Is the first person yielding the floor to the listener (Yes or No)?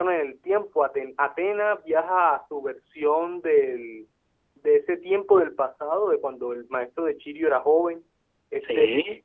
No